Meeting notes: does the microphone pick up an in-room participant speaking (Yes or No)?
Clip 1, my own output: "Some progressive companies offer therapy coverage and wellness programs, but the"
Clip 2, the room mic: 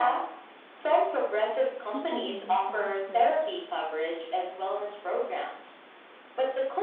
Yes